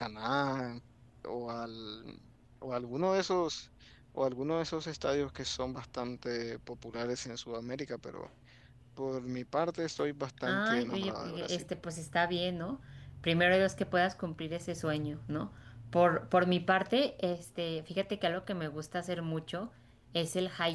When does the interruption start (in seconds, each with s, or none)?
10.4 s